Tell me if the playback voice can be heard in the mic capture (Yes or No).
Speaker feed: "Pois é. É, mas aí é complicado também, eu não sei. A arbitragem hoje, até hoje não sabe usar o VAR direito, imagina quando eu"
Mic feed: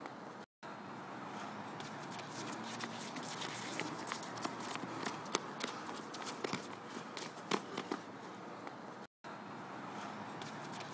No